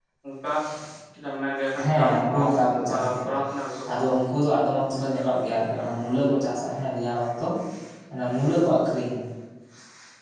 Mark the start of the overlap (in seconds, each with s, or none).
1.8 s